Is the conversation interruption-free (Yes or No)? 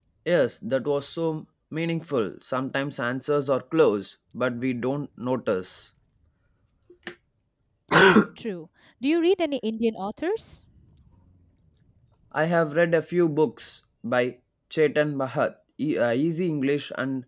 Yes